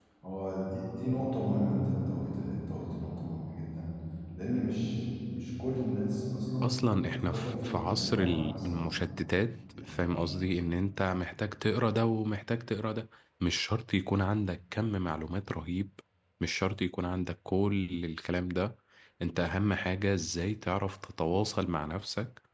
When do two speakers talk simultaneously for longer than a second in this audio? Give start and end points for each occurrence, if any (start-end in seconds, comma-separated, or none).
6.6-8.8